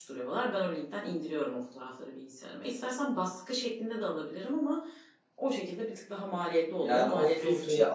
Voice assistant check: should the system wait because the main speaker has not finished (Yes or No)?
No